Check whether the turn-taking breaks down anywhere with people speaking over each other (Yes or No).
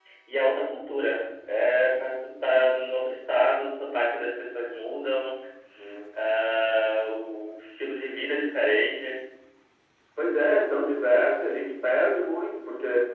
No